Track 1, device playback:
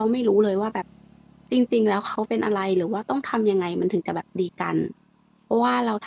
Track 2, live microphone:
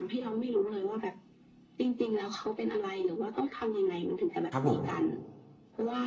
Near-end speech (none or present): present